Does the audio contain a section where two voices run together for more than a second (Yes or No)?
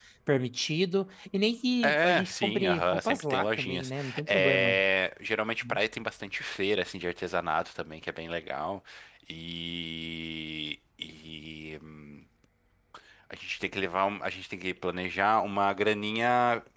Yes